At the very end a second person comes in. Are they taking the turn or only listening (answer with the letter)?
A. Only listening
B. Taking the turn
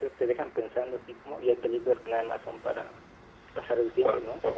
B